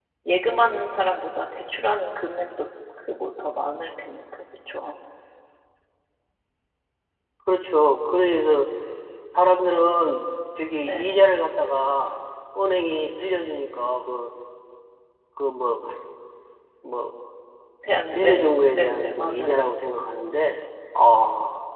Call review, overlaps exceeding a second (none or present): present